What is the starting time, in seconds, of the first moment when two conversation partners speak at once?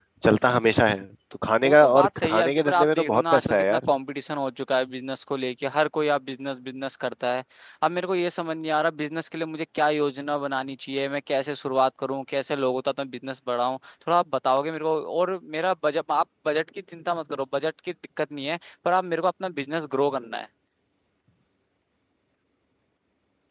1.6 s

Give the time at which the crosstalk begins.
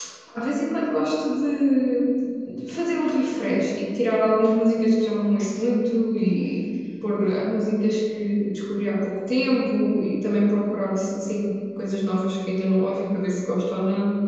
none

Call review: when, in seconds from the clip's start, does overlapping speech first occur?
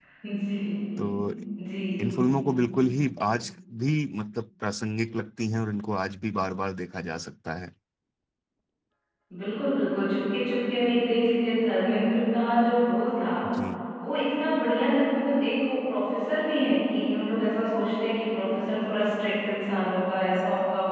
none

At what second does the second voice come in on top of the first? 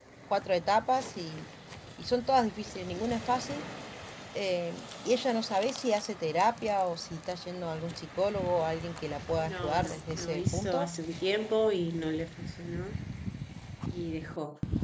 9.4 s

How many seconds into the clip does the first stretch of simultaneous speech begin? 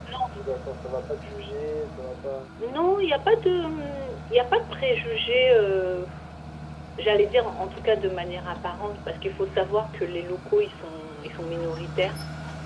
none

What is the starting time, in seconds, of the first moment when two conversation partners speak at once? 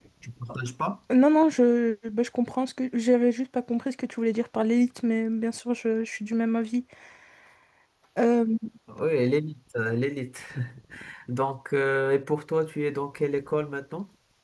none

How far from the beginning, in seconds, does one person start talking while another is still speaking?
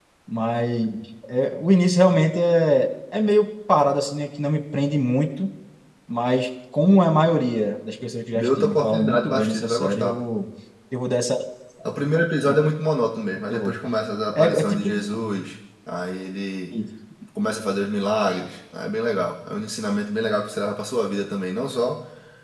8.4 s

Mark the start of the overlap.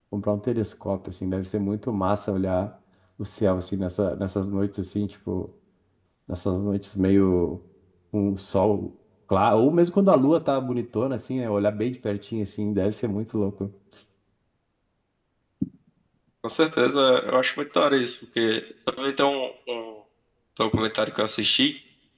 none

